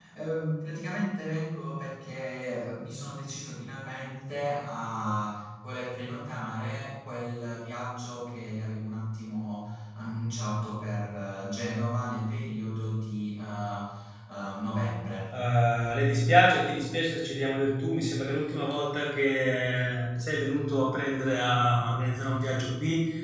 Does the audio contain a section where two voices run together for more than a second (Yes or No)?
No